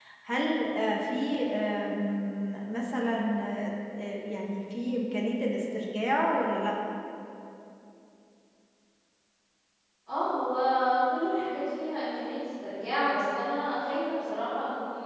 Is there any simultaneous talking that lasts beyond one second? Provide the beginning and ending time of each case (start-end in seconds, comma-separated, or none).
none